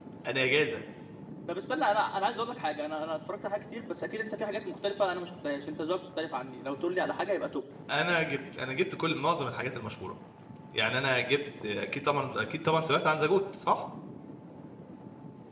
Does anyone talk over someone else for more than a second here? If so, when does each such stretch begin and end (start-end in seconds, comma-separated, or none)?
none